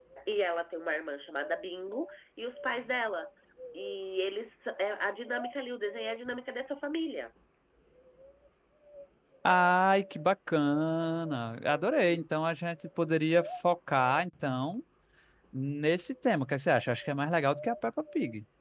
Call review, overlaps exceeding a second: none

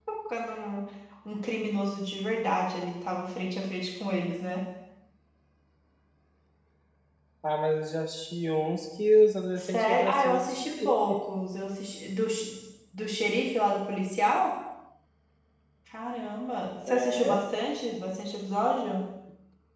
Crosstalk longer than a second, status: present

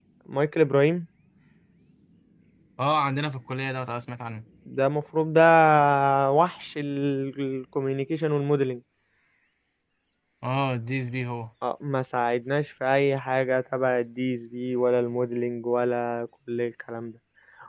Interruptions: none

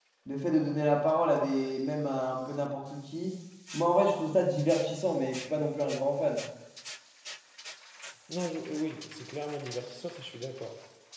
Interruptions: none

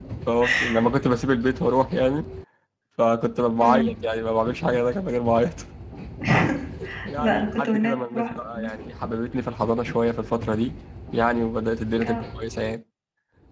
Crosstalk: present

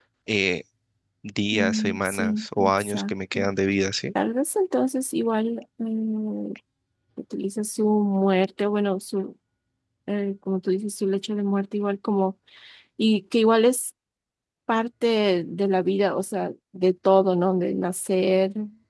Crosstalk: present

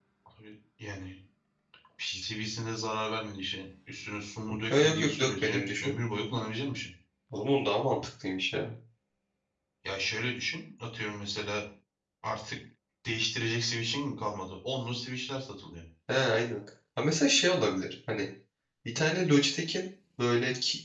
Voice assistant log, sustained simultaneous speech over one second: present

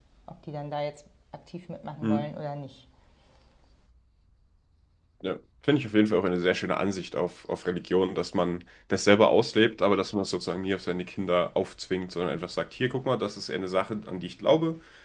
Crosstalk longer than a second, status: none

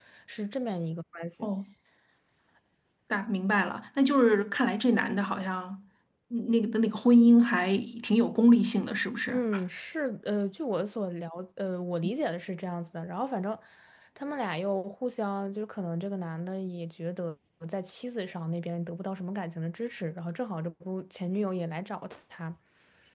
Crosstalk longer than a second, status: none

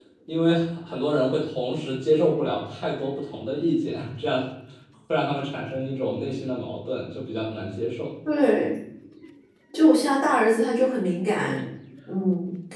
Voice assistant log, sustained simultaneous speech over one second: none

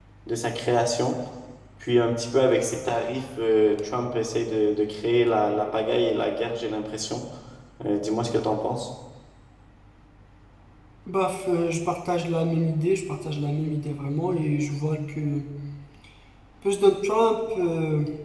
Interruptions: none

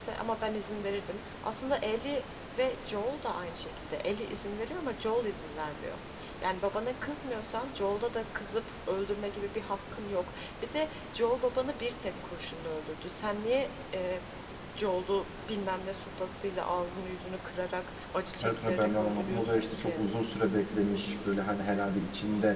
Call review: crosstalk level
present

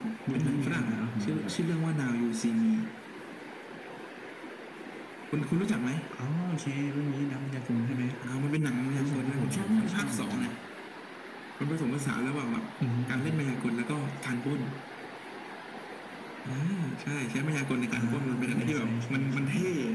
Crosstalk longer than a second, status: present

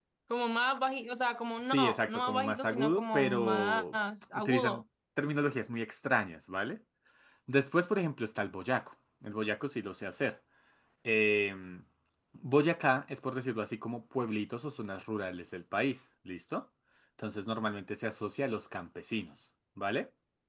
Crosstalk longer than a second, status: present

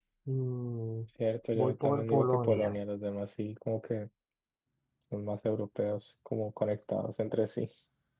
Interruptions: present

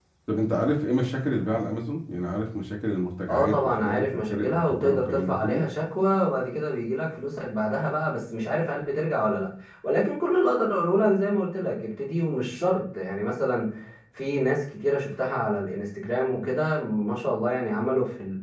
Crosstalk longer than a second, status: present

